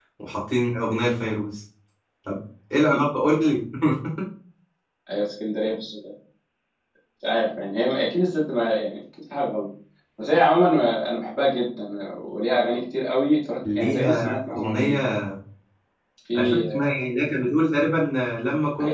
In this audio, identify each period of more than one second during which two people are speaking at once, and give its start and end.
13.8-15.0

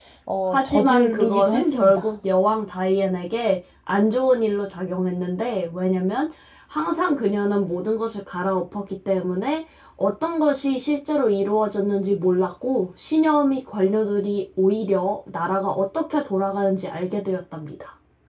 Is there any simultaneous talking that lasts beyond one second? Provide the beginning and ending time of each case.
0.5-2.1

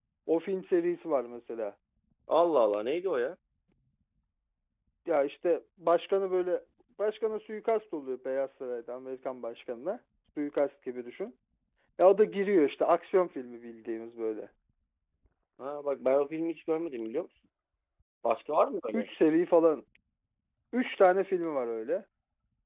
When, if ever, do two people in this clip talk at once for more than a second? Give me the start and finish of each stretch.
none

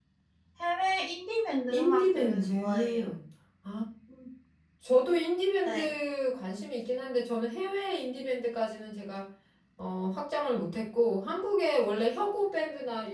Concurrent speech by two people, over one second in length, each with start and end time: 1.7-3.1

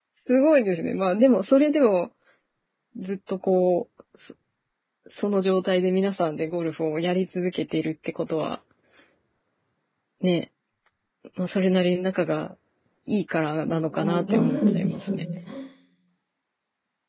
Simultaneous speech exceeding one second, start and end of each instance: 13.7-15.2

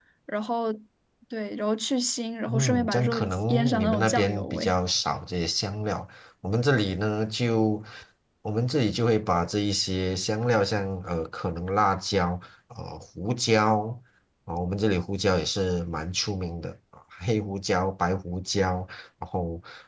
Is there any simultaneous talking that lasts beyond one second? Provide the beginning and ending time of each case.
2.5-4.8

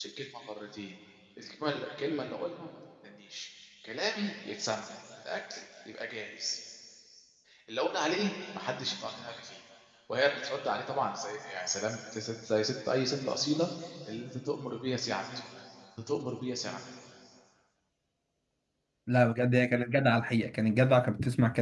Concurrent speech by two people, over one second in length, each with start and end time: none

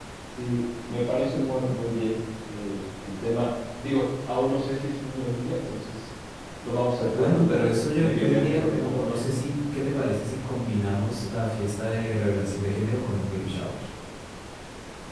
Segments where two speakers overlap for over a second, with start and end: 7.1-9.4

